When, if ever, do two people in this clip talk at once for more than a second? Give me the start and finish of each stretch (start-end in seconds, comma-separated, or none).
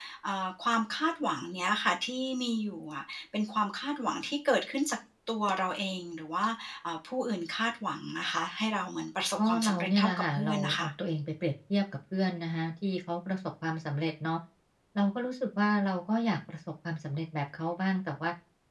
9.4-10.9